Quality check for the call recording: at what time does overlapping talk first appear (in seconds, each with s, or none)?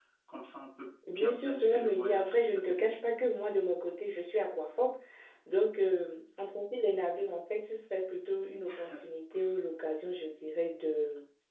1.2 s